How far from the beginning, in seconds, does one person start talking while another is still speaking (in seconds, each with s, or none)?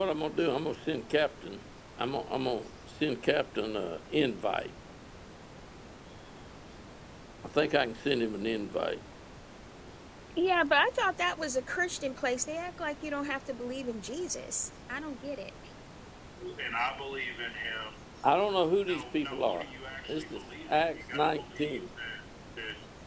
none